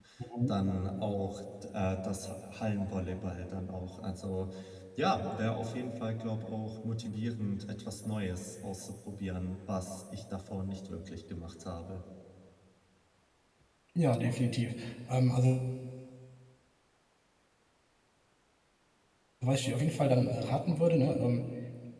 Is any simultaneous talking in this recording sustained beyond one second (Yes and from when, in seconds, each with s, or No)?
No